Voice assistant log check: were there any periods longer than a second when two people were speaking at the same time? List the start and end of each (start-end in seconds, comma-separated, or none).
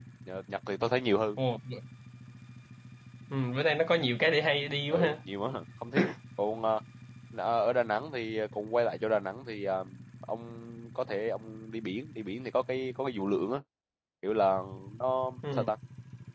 none